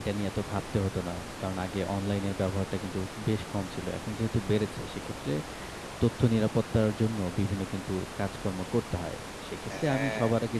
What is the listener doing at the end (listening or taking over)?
listening